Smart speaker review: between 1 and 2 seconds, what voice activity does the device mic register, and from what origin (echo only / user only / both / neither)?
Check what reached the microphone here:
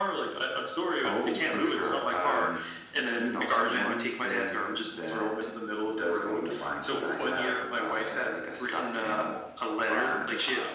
echo only